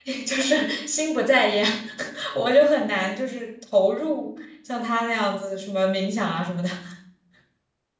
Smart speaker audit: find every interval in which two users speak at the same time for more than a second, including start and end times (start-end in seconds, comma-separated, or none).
none